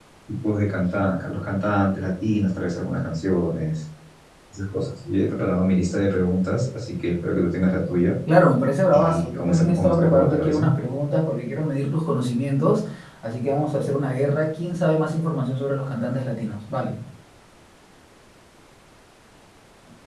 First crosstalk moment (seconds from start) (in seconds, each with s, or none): 8.9 s